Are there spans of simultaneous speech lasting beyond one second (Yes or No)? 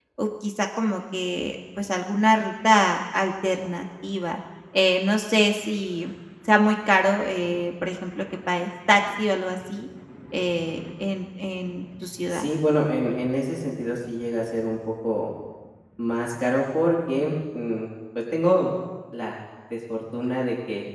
No